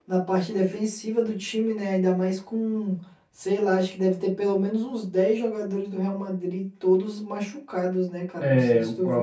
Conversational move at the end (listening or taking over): taking over